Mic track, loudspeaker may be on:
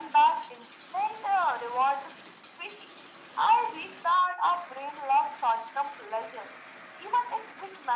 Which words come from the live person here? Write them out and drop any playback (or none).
none